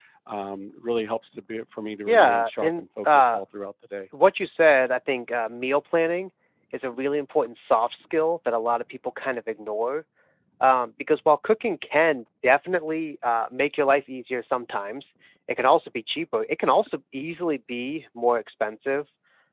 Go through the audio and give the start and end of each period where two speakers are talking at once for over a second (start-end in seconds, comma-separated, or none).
2.1-3.4